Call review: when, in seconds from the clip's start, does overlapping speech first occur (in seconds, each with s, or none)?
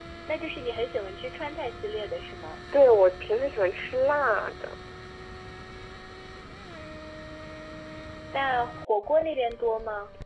none